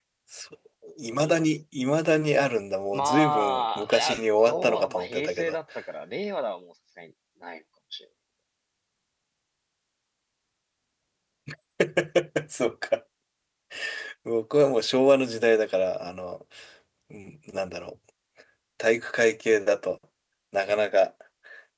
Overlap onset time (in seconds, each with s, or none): 2.9 s